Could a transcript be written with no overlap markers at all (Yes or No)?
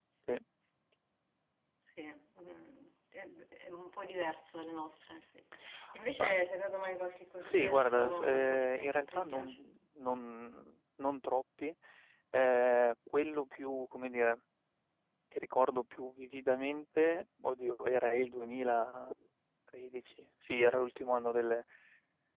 No